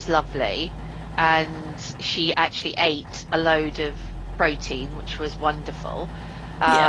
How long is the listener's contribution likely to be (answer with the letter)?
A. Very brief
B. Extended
A